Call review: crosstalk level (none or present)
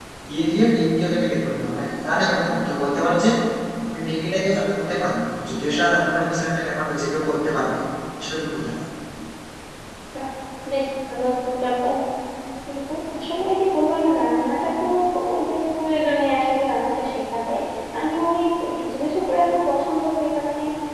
none